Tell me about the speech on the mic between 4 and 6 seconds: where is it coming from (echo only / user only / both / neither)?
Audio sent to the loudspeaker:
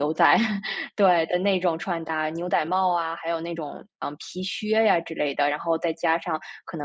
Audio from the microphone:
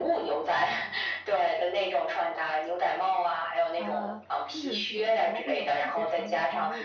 both